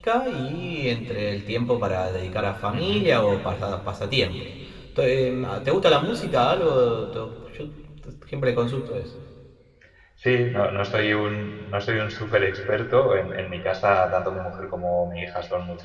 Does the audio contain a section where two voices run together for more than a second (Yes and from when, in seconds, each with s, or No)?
No